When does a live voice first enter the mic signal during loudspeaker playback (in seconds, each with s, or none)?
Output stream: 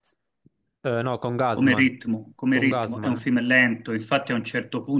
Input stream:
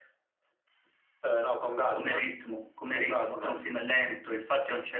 none